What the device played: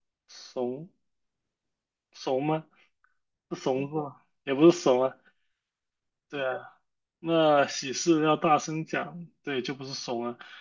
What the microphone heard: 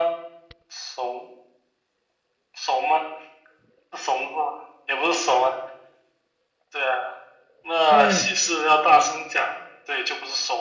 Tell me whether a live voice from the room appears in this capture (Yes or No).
Yes